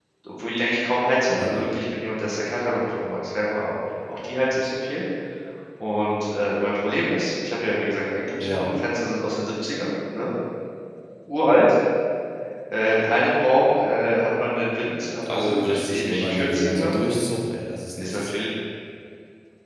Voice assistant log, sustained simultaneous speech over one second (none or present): present